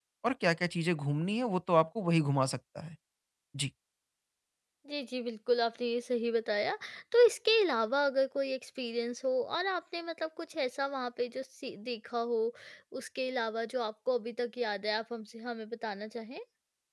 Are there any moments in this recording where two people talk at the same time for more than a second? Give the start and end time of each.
none

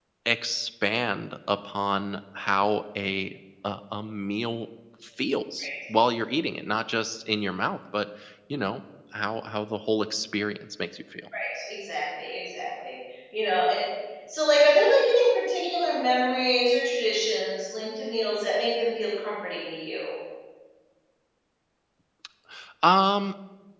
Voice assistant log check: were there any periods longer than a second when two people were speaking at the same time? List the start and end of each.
none

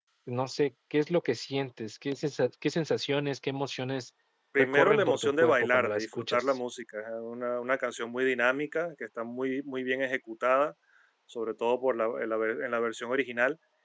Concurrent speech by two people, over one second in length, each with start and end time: 4.6-6.4

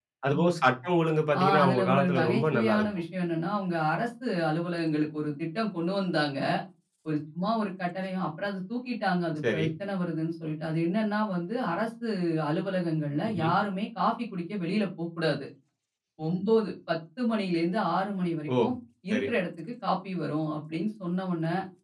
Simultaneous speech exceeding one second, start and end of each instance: 1.6-2.9

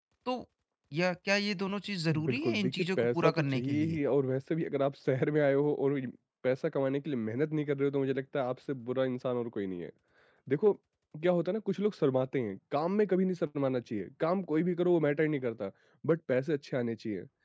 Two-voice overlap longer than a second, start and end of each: 2.1-4.0

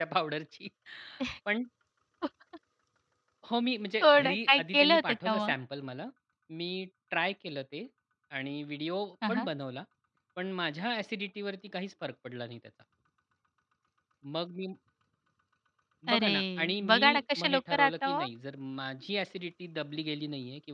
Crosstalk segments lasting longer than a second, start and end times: 4.0-5.5, 16.1-18.3

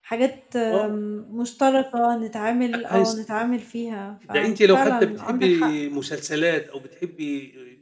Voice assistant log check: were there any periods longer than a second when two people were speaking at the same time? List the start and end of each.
4.3-5.7

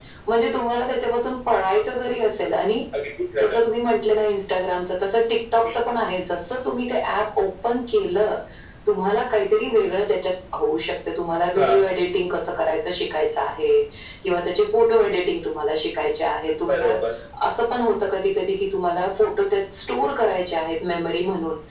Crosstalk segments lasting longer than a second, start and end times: none

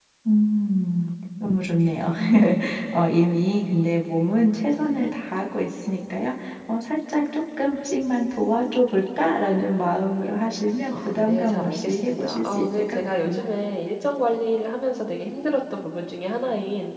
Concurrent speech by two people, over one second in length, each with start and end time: 10.9-13.4

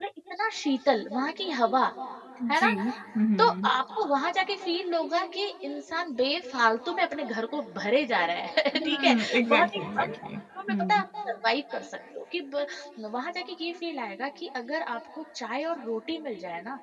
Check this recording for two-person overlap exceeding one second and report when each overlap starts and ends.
8.8-10.2

